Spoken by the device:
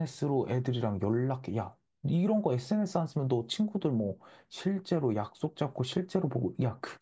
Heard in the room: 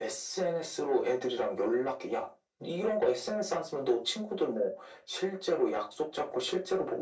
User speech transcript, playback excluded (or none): none